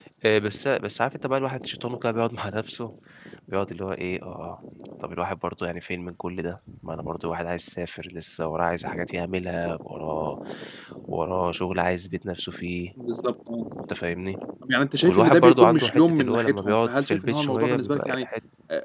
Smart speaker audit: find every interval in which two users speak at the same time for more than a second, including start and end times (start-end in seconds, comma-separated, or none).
15.1-18.2